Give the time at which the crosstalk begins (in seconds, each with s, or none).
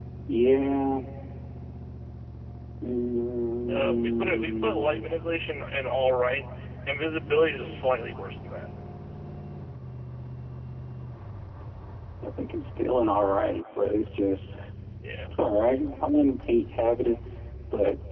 3.7 s